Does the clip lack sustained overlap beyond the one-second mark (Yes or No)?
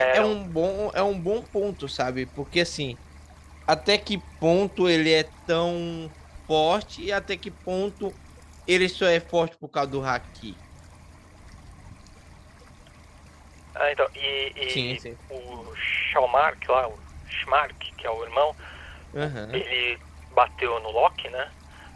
Yes